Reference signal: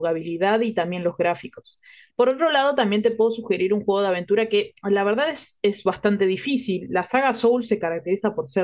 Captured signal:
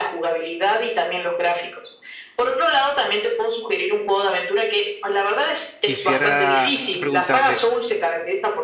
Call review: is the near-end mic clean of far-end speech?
No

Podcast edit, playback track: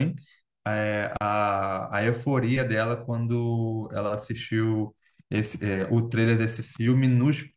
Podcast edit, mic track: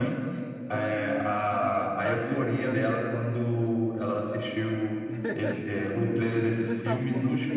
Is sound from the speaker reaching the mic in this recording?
Yes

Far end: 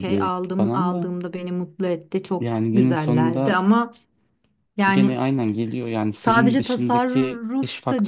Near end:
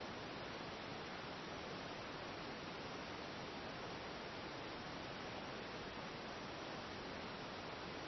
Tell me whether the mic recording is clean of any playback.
Yes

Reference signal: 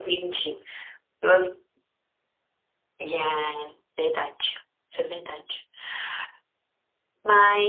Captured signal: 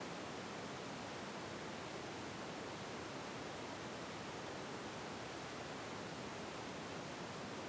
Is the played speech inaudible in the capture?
Yes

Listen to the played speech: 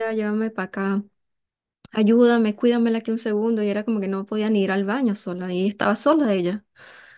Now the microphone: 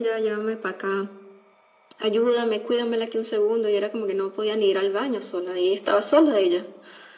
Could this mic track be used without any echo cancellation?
No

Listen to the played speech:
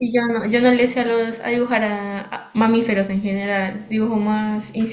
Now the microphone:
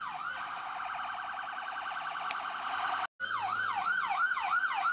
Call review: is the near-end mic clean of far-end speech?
Yes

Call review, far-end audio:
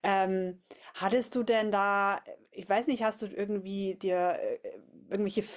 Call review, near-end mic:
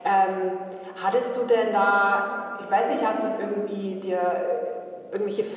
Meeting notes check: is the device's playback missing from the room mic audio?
No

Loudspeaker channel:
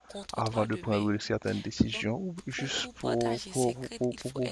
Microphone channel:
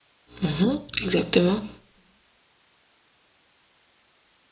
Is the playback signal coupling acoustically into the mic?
No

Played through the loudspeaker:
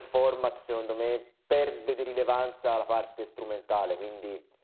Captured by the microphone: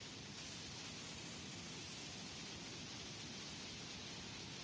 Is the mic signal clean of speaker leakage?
Yes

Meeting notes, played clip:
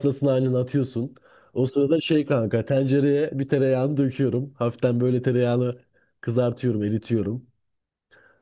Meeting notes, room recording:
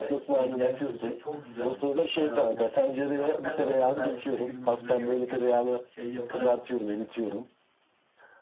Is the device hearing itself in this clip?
Yes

